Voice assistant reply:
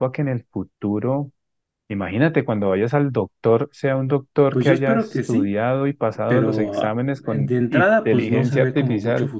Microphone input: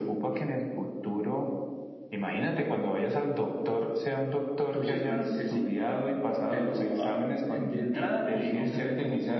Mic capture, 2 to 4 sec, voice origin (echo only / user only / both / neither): echo only